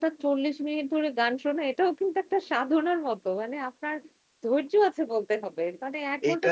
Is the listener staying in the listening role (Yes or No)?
Yes